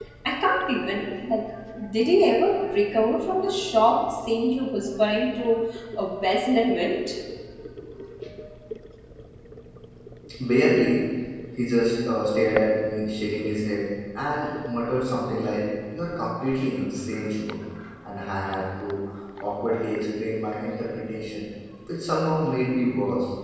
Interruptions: none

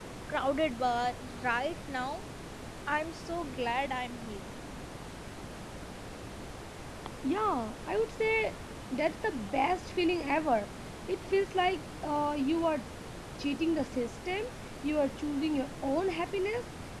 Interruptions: none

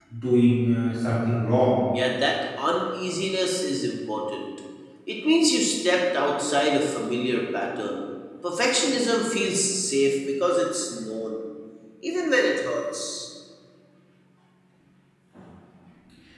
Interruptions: none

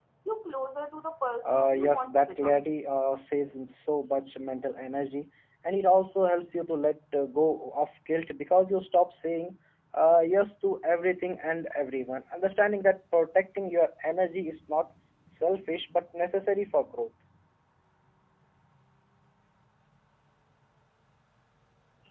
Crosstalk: present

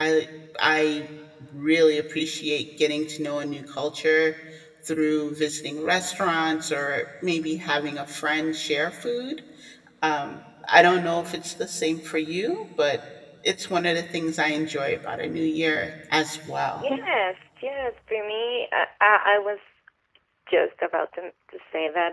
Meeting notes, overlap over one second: none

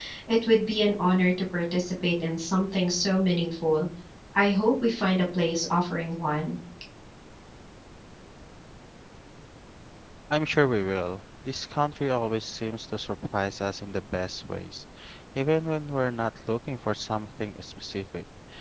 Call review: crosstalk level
none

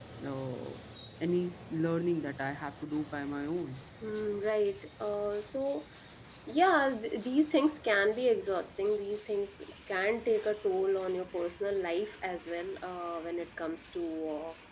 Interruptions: none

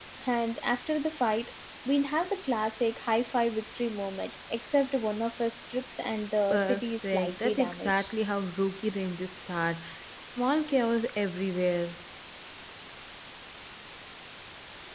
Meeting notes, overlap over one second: present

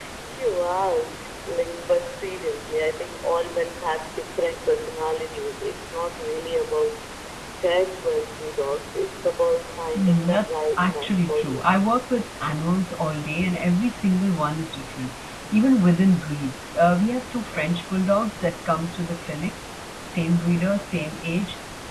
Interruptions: present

